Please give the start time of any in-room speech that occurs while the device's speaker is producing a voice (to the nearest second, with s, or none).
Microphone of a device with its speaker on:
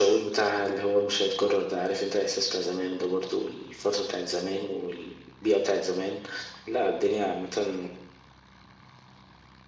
none